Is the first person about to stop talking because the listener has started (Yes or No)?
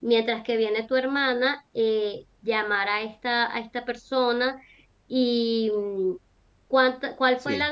No